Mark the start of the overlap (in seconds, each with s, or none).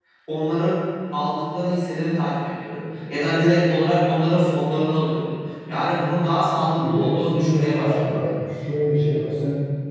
6.8 s